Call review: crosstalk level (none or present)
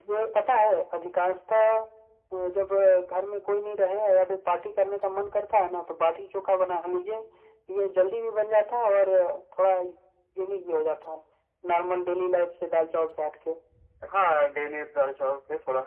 none